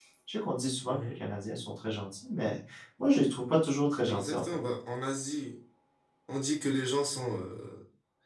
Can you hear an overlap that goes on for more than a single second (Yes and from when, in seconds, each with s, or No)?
No